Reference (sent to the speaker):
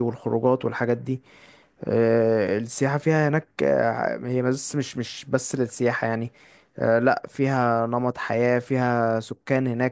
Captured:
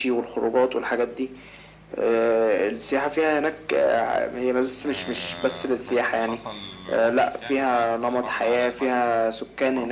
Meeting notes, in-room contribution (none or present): present